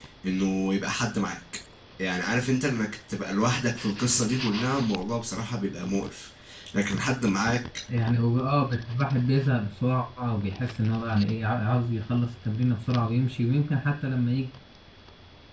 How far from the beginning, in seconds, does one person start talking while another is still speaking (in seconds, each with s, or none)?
none